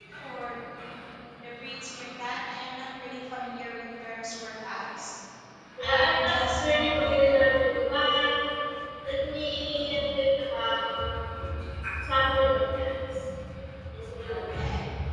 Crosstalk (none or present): present